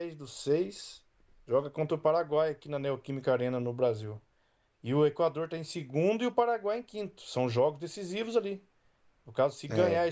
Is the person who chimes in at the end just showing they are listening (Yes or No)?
Yes